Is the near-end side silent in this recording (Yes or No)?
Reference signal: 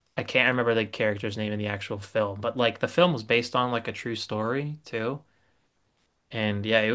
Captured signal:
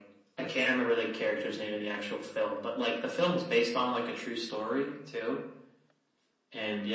Yes